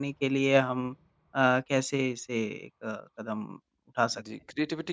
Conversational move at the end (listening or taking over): taking over